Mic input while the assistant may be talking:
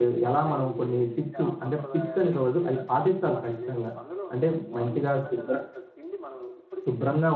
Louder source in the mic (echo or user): user